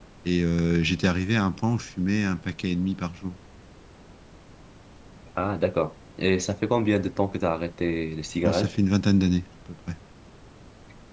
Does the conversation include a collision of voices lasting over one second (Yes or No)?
No